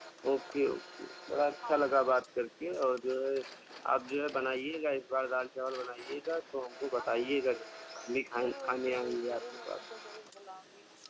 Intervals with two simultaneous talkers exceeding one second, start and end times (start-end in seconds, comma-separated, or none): 8.4-9.9